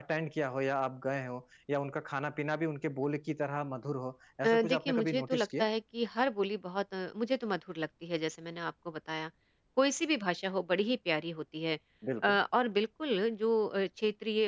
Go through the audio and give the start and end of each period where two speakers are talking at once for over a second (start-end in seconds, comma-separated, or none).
4.4-5.7